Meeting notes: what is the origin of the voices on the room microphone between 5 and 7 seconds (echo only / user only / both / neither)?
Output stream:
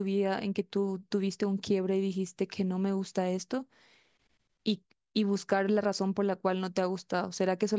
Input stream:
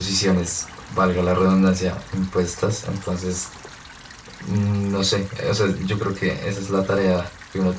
user only